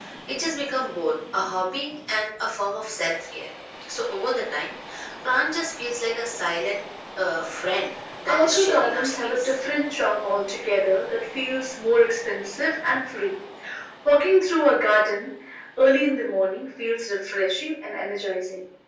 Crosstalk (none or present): present